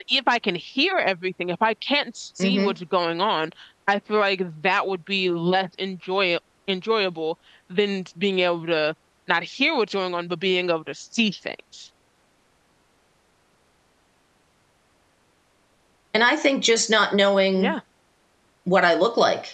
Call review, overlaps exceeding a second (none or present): none